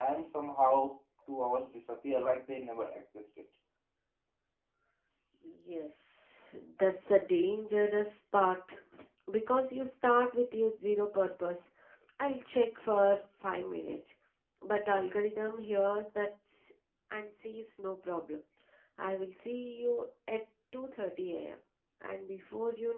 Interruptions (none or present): none